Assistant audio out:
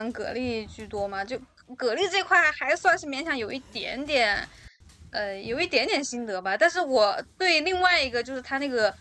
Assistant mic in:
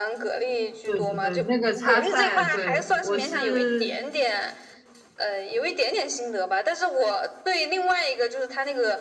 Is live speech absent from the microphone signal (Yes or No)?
No